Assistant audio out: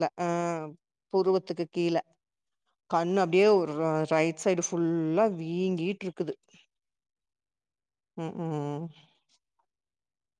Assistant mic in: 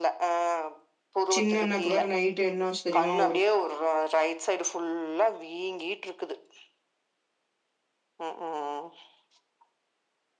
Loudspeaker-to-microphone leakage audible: Yes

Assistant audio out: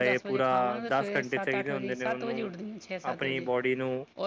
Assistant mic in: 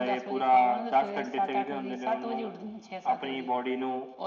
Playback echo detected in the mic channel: Yes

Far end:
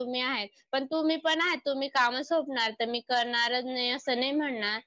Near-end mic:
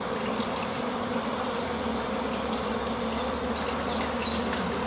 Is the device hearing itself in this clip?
No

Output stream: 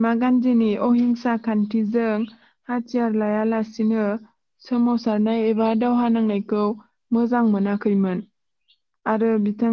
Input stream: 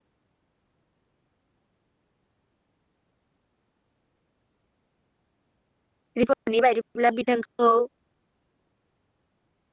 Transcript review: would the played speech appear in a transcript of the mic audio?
No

